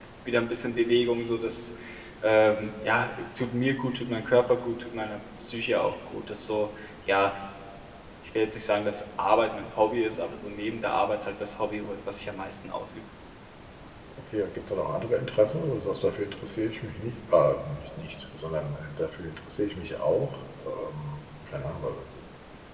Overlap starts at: none

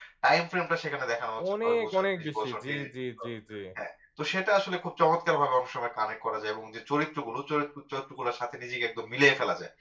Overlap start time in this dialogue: 1.4 s

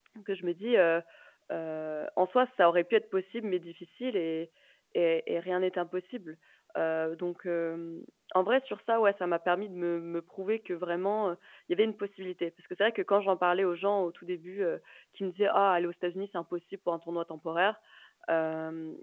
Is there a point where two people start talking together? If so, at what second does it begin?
none

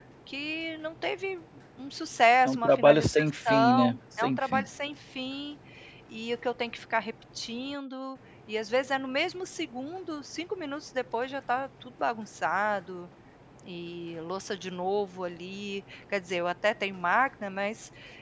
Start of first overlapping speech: 2.4 s

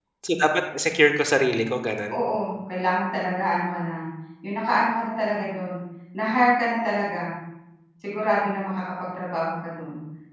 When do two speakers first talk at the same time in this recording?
none

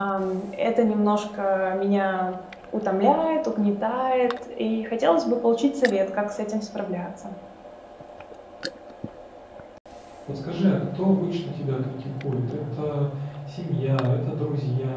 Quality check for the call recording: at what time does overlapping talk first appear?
none

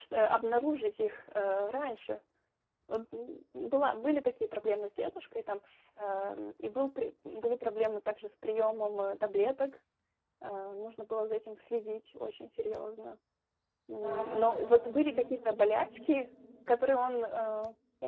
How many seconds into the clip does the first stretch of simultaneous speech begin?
14.0 s

